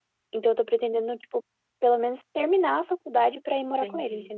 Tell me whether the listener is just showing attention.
No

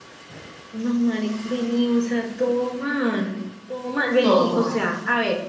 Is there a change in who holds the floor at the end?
No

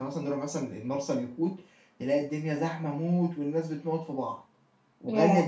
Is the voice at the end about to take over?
No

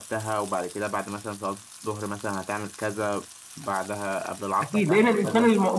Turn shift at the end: Yes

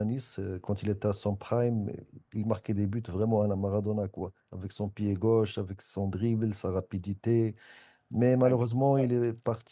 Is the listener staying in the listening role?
Yes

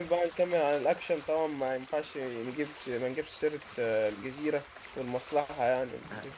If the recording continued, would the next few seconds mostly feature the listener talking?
Yes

